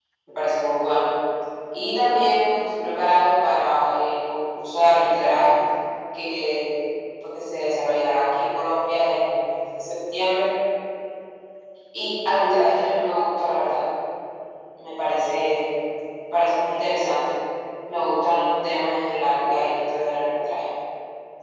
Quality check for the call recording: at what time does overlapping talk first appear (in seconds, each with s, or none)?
none